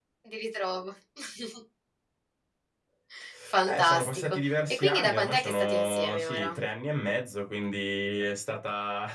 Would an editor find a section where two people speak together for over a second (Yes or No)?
Yes